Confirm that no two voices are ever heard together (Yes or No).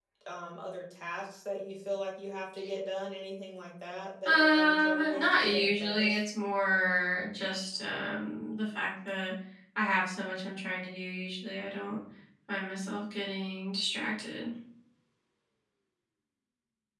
No